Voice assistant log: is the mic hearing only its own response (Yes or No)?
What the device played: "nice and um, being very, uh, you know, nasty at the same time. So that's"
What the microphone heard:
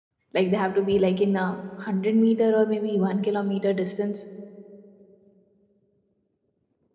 No